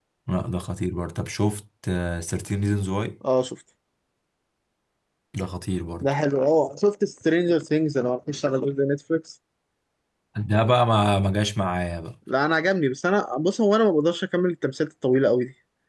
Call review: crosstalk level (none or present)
none